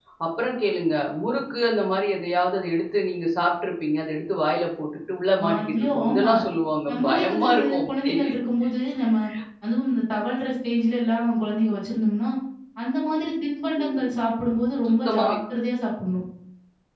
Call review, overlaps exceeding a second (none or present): present